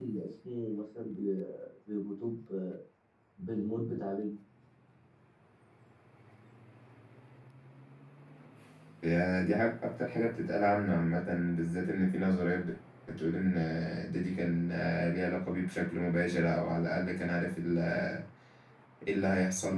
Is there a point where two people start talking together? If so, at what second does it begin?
none

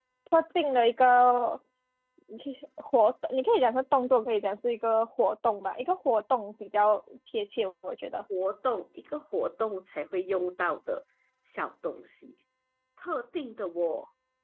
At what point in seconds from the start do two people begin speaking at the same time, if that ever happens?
none

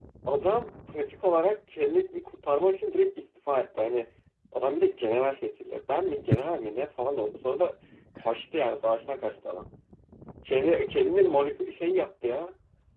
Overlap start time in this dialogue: none

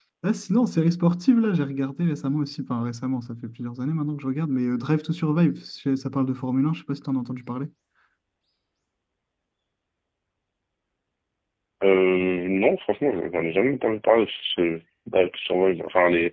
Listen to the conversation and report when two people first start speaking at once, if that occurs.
none

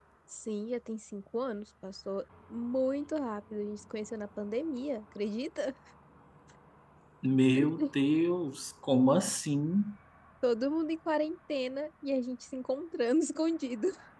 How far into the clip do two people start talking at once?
none

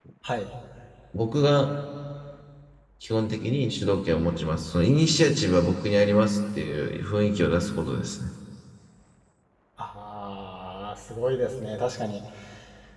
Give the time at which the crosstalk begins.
none

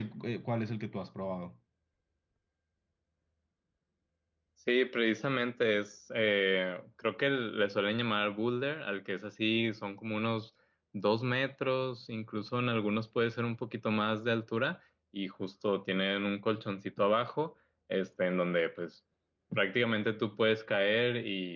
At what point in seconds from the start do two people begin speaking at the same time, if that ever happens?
none

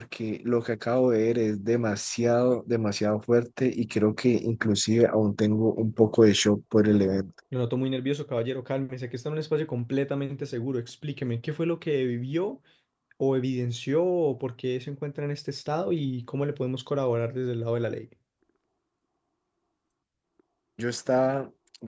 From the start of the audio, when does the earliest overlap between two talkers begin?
none

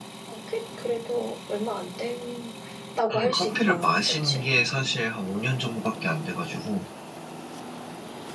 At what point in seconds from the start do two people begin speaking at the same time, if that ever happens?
3.1 s

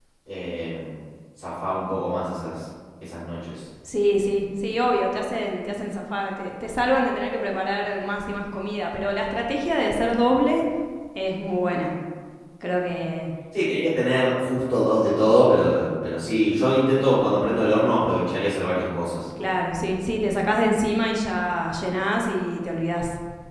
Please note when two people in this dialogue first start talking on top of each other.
none

